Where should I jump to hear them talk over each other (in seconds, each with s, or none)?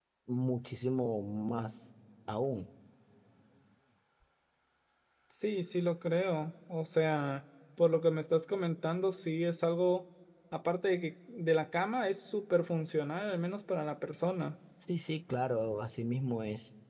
none